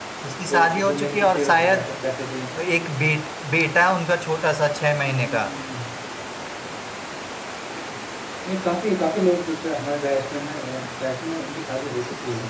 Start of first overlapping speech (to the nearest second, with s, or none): 1 s